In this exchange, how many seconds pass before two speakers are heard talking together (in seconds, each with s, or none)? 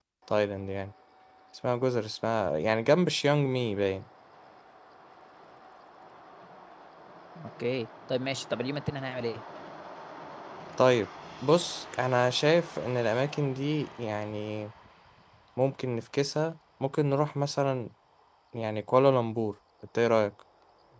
none